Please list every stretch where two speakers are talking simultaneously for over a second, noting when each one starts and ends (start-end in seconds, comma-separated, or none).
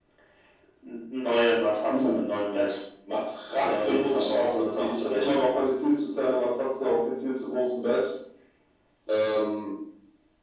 3.6-5.3